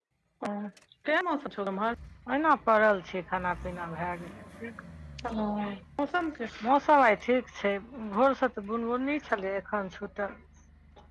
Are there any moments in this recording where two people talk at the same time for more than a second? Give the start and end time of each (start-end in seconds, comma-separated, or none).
none